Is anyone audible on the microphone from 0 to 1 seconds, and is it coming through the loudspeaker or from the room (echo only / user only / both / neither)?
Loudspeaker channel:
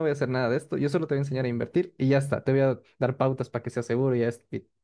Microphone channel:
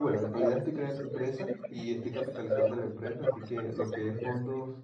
both